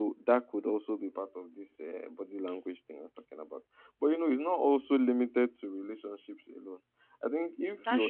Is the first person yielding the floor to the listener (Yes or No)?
No